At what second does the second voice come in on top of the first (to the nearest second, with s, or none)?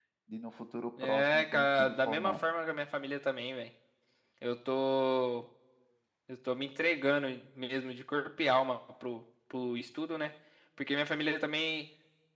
1 s